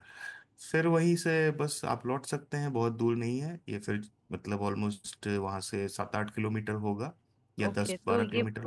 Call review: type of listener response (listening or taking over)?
taking over